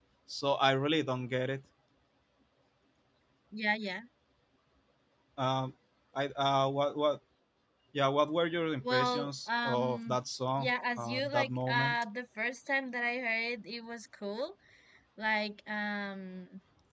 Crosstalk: present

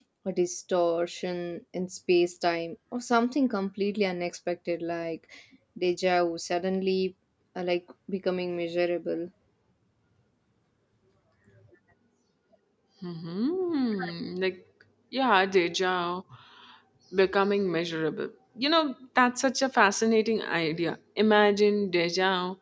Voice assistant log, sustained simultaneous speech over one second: none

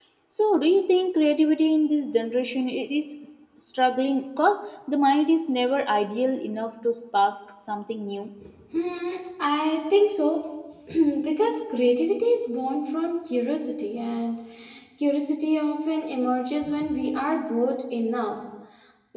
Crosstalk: none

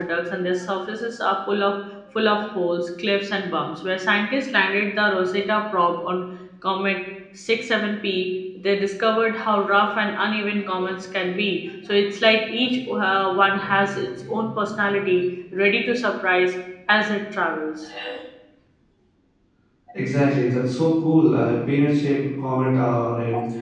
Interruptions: none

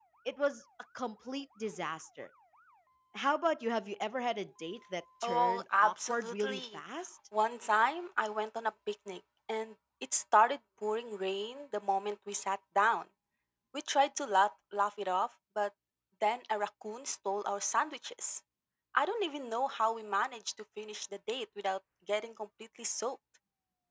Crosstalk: present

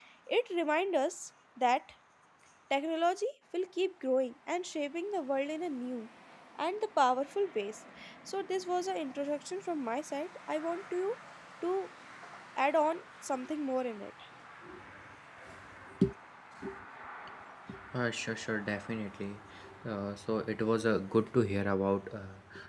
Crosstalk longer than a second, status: none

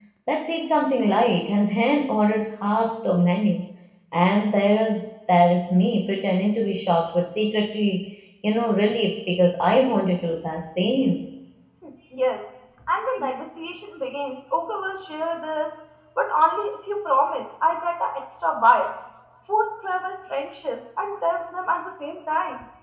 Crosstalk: none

